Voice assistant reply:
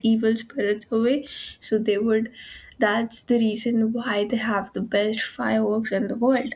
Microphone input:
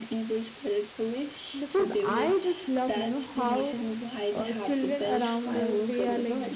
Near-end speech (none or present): present